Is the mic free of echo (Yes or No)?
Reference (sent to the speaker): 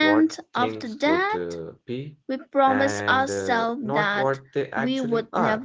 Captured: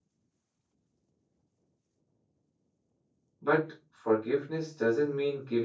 Yes